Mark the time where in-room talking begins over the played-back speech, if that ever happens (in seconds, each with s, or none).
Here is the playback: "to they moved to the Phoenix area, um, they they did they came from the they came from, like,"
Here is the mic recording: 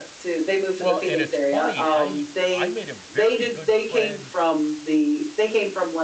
0.8 s